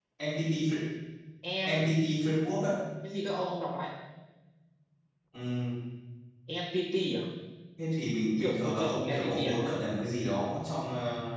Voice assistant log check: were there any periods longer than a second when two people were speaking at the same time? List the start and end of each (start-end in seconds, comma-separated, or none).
8.4-9.7